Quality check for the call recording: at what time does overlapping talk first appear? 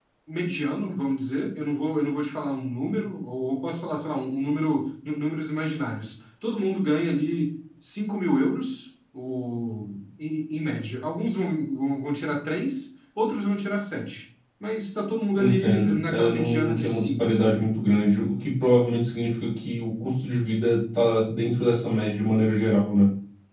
15.3 s

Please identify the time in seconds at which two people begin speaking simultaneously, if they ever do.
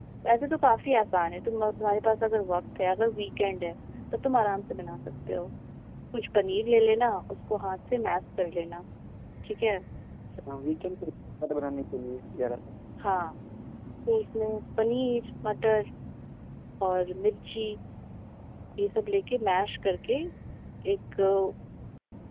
none

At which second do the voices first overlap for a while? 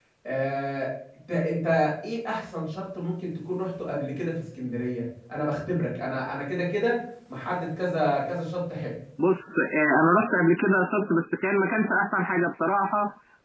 none

